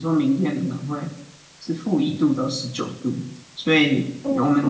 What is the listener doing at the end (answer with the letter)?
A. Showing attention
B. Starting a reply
A